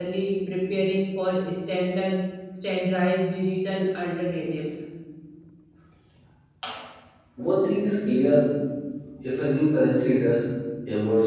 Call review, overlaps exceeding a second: none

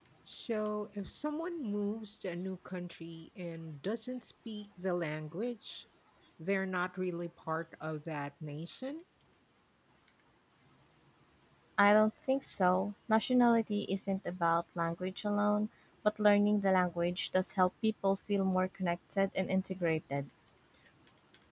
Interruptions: none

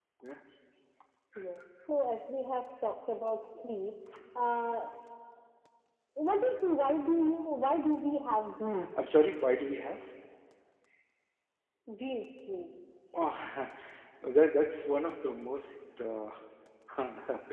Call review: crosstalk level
none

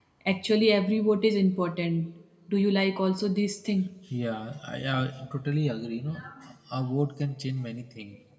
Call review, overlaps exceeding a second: none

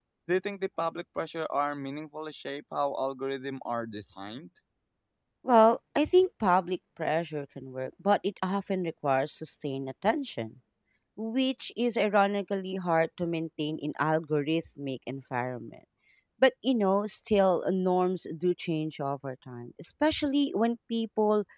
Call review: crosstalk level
none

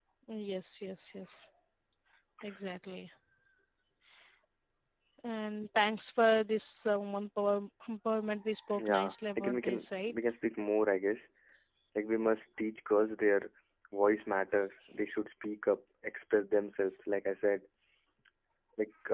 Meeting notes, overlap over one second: present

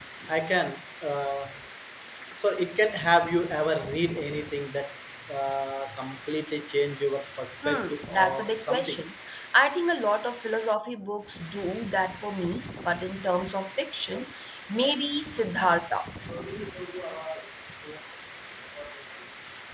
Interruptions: present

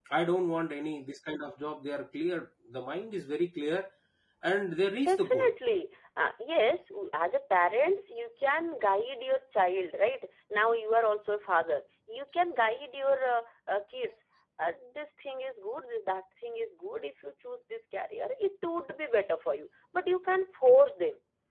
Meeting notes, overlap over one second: none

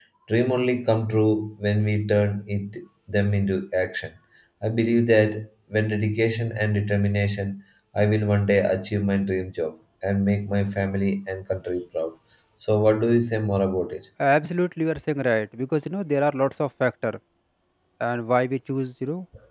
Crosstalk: none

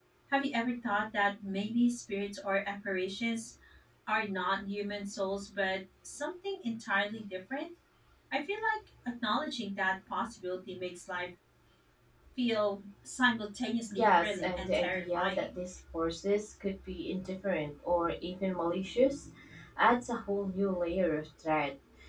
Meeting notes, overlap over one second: present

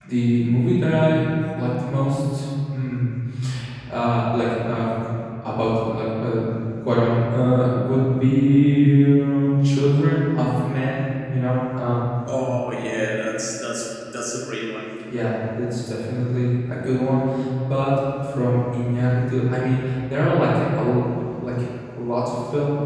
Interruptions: none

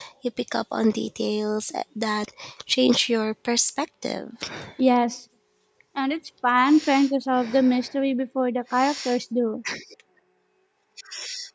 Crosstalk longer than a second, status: none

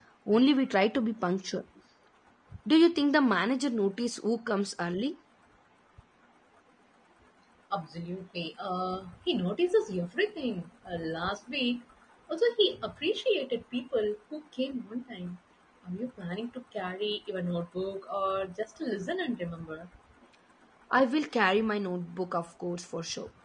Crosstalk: none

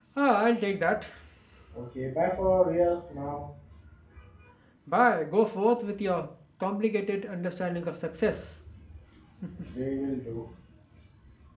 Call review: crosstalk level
none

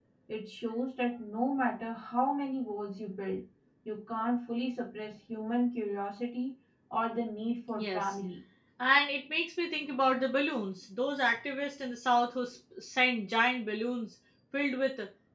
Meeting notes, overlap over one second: none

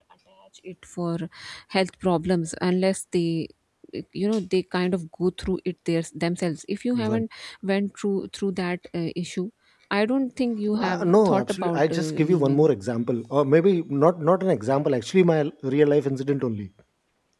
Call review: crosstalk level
present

